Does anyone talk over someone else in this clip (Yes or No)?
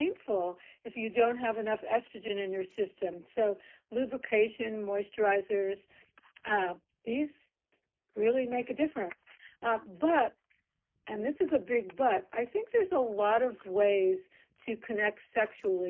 No